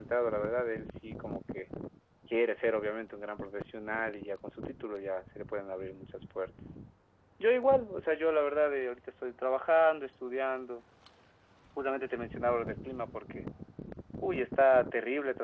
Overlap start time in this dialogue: none

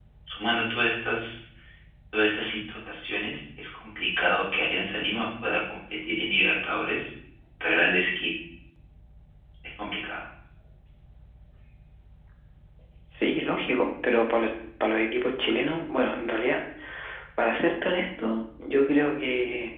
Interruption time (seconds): none

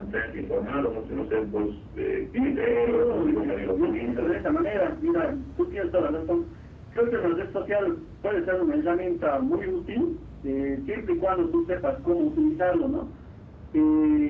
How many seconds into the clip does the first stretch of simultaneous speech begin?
2 s

